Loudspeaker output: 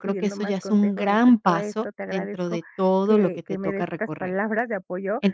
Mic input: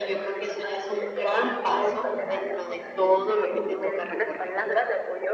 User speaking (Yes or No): No